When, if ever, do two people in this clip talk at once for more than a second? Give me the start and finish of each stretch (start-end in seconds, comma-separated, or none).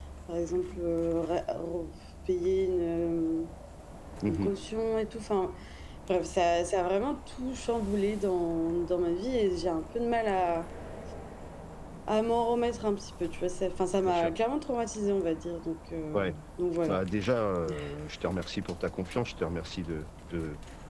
none